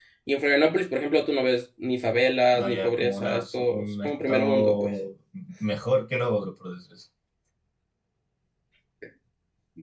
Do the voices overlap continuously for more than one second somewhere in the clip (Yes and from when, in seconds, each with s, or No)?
Yes, from 2.5 s